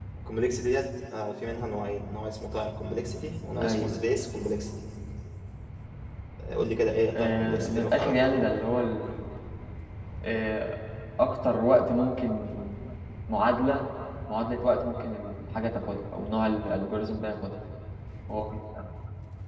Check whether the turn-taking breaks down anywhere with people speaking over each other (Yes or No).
Yes